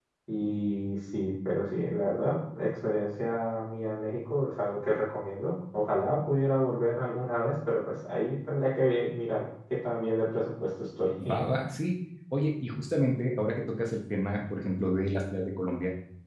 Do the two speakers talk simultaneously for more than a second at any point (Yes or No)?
No